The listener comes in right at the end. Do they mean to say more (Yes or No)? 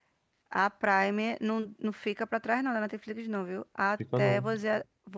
No